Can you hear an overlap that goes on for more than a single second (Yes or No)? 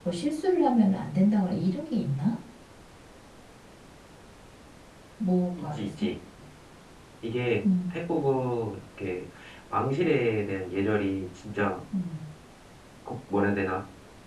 No